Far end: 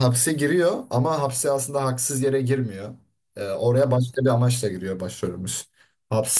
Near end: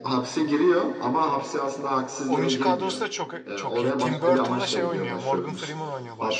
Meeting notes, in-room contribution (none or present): present